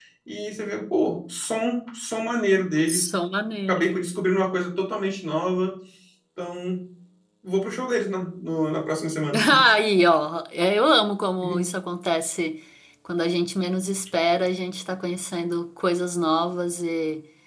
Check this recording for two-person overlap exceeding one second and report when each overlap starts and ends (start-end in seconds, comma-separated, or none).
none